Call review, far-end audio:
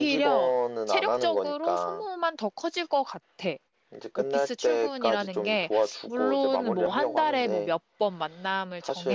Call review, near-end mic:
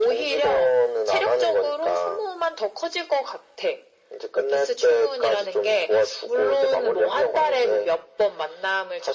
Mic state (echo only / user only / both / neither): echo only